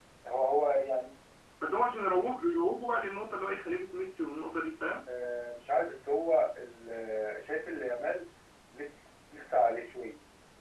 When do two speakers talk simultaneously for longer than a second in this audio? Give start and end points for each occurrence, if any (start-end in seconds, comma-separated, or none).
none